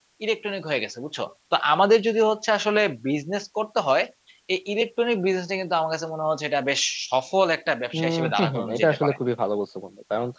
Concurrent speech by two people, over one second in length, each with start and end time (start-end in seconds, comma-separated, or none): 8.0-9.2